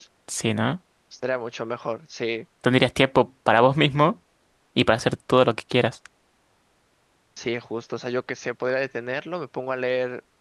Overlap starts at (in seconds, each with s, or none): none